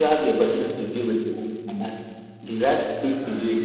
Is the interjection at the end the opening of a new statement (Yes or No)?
No